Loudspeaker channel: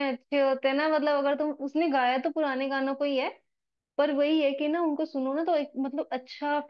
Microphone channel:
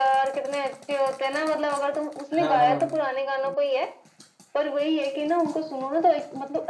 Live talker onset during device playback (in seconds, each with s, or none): 2.4 s